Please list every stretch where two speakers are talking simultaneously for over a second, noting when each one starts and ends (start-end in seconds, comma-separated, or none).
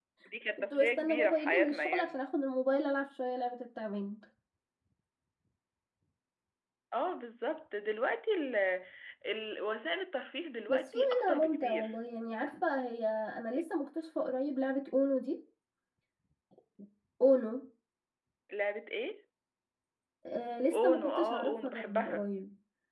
0.7-2.2, 10.7-11.9, 20.7-22.2